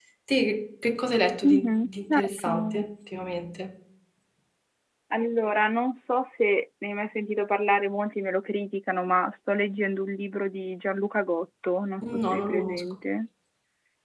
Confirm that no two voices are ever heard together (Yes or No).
No